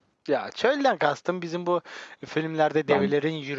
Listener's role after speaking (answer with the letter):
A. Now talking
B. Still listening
B